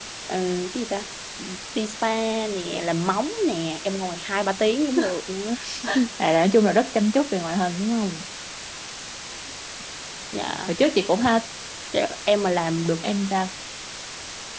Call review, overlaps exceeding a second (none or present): none